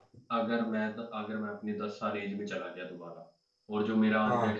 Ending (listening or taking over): listening